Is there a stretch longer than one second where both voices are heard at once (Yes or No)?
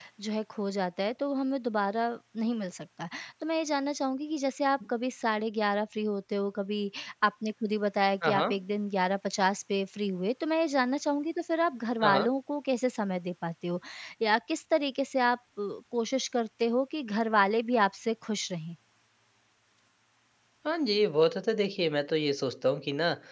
No